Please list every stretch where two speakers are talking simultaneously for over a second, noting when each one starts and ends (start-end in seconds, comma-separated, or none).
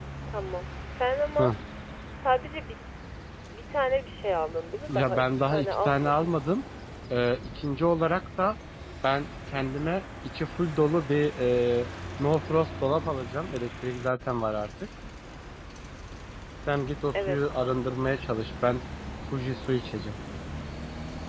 4.9-6.4